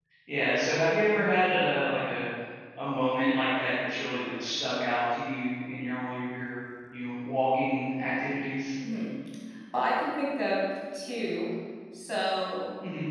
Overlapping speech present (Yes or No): No